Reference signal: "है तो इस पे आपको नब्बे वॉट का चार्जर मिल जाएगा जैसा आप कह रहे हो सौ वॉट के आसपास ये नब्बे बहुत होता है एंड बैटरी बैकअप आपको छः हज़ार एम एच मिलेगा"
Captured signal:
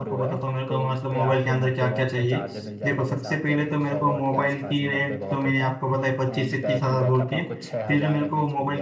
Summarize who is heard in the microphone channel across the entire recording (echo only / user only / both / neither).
both